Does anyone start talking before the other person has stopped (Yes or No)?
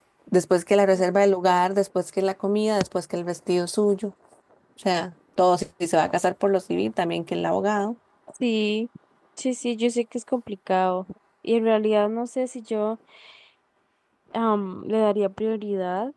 No